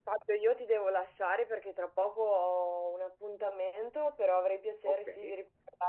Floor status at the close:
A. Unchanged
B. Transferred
A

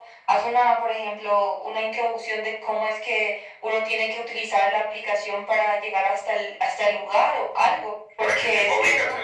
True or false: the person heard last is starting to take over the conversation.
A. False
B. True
B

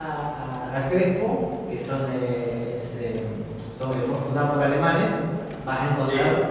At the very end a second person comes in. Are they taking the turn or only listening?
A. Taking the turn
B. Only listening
B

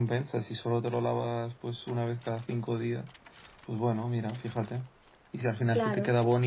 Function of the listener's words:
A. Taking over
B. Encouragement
B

